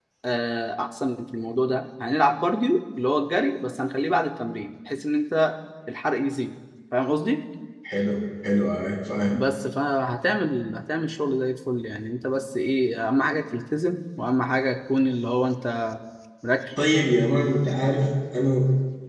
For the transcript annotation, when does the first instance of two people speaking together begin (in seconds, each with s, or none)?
none